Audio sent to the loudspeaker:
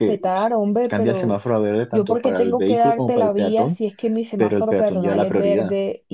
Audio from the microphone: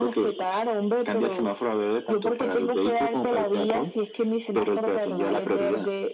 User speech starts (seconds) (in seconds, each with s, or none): none